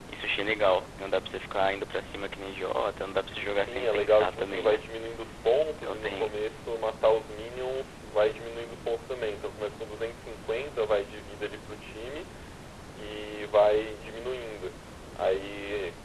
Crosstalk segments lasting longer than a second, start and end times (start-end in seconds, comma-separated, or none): 3.6-4.8